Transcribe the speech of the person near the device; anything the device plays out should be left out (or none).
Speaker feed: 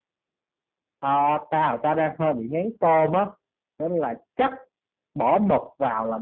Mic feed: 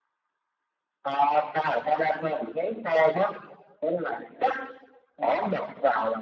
none